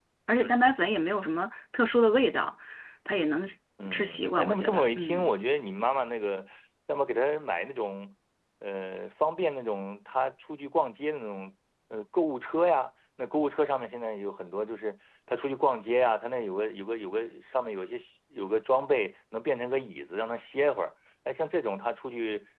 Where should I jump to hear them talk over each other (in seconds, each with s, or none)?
3.9 s